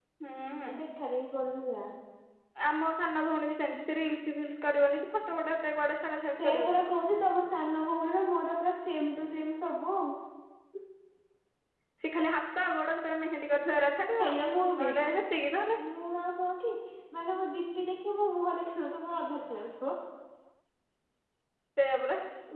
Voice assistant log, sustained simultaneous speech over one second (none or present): none